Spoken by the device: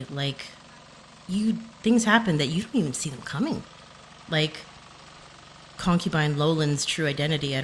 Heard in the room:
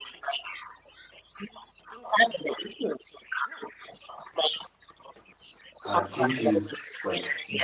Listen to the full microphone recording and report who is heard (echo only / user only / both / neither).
both